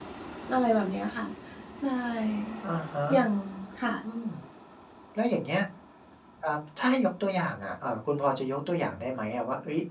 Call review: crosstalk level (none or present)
none